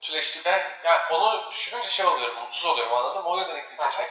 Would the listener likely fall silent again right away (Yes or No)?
No